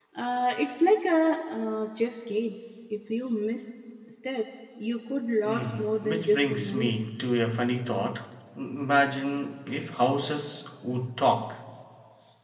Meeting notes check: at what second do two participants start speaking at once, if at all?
5.4 s

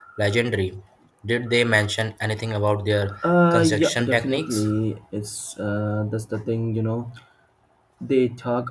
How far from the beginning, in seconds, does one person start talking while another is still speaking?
3.2 s

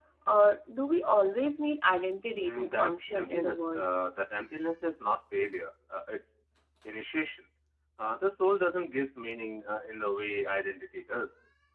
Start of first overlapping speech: 2.4 s

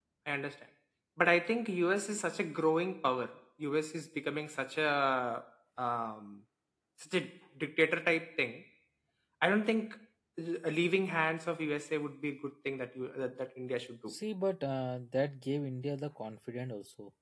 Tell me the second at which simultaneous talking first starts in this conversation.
none

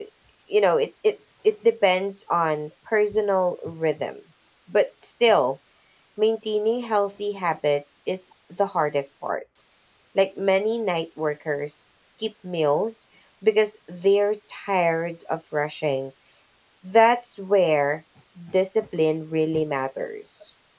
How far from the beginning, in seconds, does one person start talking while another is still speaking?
none

